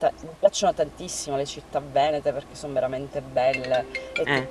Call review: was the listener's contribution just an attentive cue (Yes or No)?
Yes